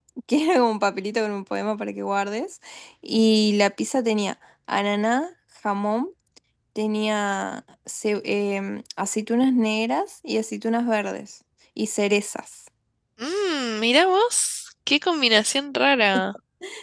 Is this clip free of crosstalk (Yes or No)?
Yes